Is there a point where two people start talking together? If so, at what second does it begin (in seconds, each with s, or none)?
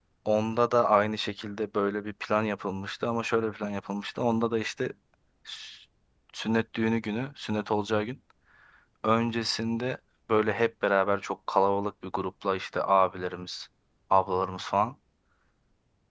none